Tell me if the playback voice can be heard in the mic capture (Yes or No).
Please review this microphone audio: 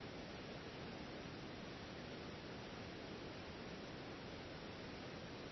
No